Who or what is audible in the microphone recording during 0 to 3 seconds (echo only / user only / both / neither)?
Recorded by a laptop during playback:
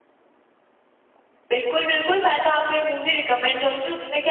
echo only